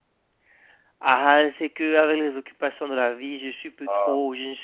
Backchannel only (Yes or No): Yes